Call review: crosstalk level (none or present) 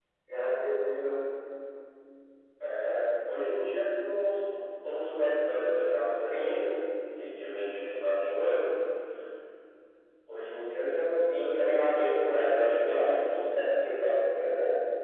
present